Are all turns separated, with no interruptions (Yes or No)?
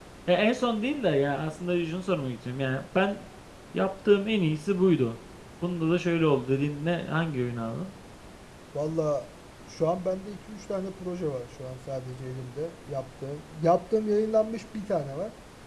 Yes